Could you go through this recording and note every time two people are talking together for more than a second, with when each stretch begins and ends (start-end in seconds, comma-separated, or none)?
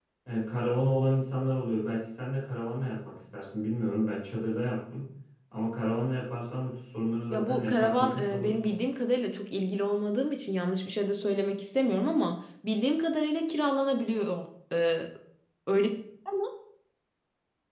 7.3-8.7